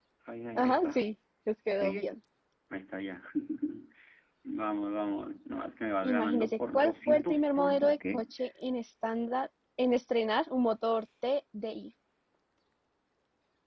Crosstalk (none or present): present